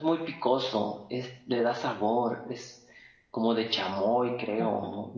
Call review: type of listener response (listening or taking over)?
taking over